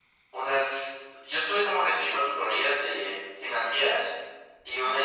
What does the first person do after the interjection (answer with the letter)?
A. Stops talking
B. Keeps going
B